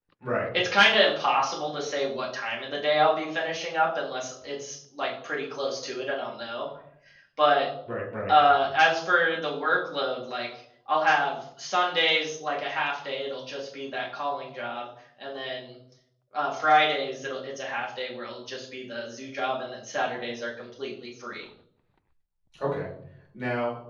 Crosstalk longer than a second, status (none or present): none